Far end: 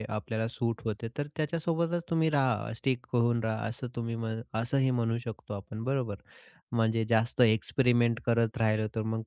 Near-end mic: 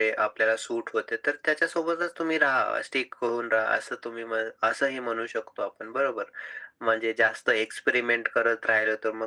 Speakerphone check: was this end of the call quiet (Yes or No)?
Yes